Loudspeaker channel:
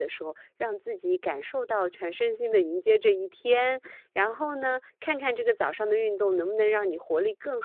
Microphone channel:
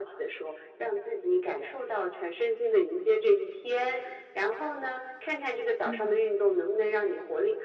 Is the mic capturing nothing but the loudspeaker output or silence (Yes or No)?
No